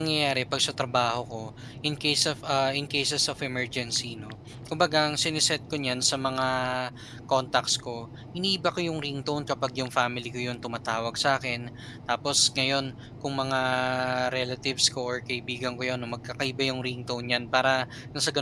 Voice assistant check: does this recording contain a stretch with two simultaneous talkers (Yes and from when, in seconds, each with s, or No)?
No